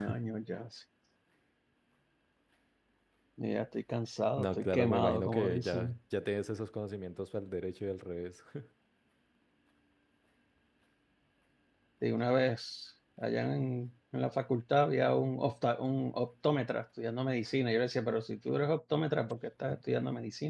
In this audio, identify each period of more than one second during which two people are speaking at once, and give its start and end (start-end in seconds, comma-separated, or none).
4.4-6.0